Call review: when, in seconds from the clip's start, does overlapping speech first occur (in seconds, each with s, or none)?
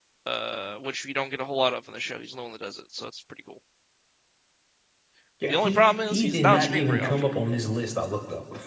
5.5 s